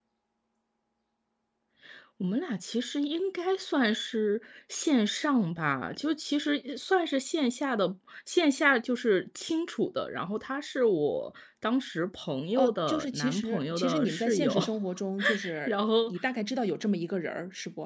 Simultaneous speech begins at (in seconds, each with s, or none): 12.5 s